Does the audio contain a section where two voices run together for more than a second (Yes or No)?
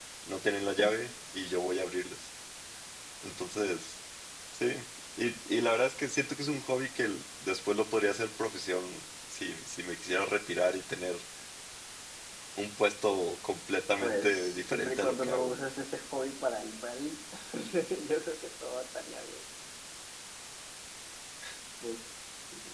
Yes